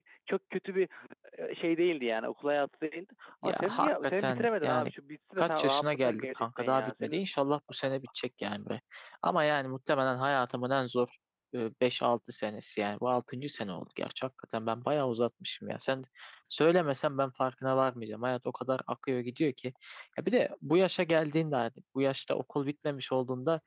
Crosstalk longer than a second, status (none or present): present